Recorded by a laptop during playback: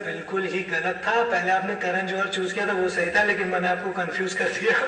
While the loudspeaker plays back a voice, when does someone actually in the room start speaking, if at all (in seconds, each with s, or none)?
none